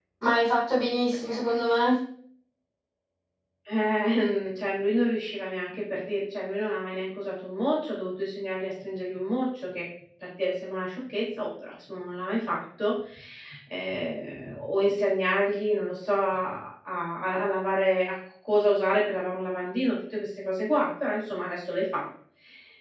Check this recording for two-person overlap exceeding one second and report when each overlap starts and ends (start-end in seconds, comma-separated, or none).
none